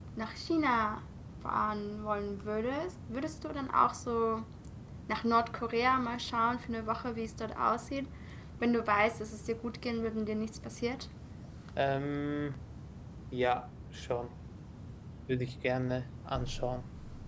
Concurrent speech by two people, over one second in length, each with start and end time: none

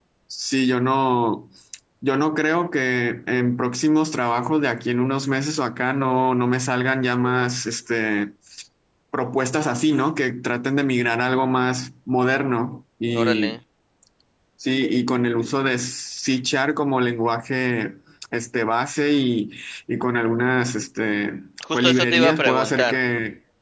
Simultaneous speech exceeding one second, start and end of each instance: 21.7-23.0

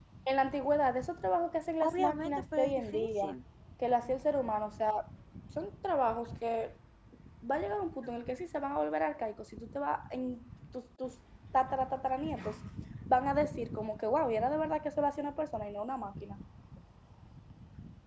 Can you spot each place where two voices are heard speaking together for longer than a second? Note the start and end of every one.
1.8-3.2

